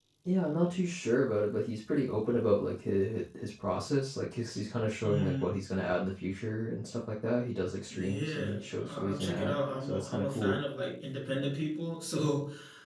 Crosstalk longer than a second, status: present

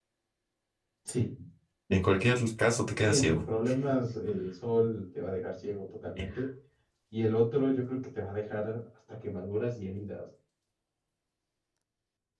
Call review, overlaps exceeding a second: none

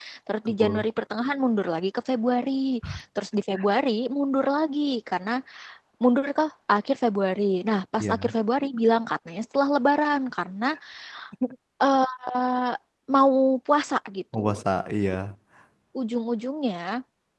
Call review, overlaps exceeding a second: none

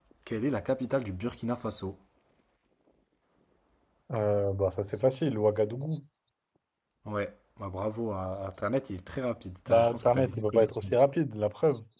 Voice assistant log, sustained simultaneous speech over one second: present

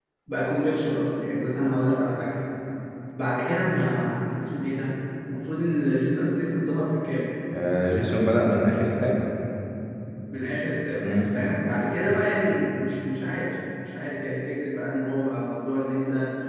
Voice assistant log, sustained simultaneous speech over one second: none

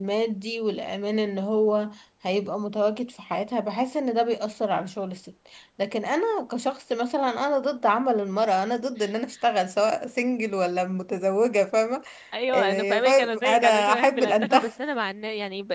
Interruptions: present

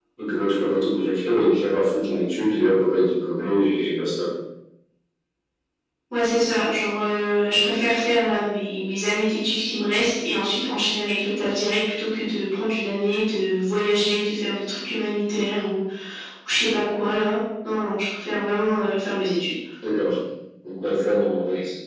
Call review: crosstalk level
none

